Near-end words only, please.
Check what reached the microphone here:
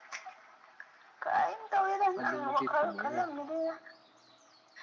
ꯑꯗꯨꯃꯛꯇꯤ ꯊꯝꯃꯣꯏꯍꯦ

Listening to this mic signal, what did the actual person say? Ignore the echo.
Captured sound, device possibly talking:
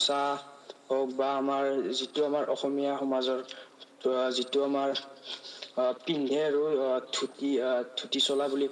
none

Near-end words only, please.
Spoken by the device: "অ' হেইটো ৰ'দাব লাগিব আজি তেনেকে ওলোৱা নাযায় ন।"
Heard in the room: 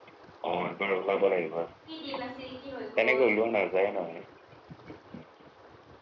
কি দিন আছিল! কি হৈ গল।

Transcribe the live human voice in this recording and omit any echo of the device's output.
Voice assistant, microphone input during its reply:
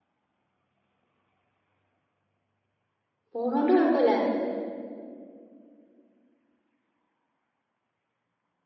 പോണോണ്ട് കൊഴപ്പല്ല

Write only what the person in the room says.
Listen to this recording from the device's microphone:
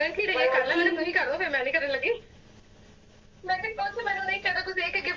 ਮਧੂ-ਮੱਖੀ

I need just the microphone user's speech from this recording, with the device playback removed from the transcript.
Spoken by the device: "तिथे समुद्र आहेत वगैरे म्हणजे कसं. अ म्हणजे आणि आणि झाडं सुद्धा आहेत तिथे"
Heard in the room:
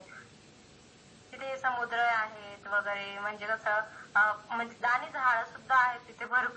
none

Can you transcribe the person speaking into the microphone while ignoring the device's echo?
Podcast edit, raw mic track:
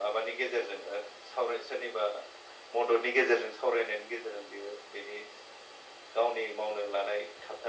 none

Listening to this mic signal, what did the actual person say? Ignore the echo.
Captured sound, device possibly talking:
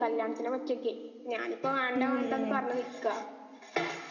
ഉം ഉം

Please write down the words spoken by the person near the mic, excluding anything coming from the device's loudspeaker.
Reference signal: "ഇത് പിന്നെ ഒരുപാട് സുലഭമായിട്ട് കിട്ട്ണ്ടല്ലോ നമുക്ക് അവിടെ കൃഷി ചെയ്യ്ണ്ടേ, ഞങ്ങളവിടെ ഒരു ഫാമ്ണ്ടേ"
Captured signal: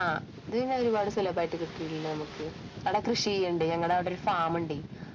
none

